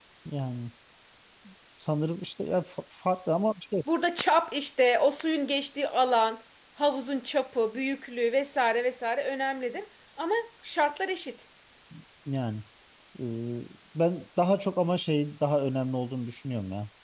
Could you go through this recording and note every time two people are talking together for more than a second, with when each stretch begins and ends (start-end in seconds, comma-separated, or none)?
none